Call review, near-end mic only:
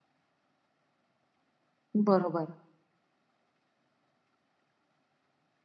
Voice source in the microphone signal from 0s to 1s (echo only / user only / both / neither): neither